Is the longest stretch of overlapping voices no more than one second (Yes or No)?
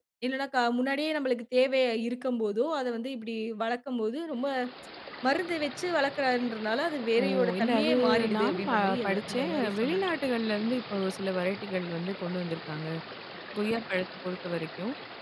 No